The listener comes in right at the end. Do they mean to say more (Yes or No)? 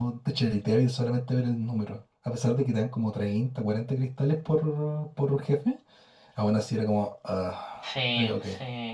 Yes